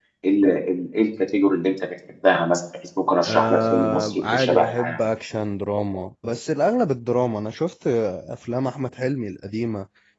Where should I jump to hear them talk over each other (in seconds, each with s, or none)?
3.2 s